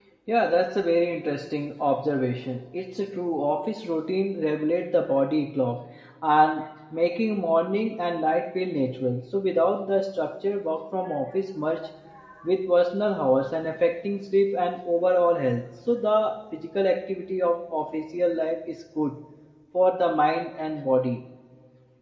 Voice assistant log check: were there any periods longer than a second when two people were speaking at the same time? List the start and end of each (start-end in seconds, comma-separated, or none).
none